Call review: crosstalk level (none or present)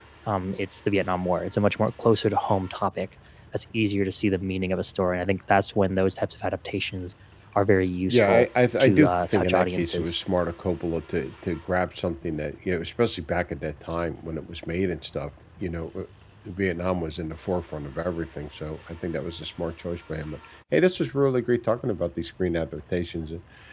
present